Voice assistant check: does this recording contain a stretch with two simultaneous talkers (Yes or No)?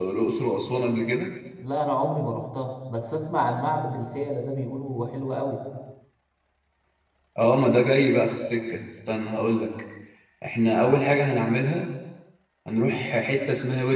No